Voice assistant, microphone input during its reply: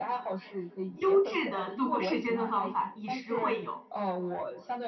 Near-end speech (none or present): present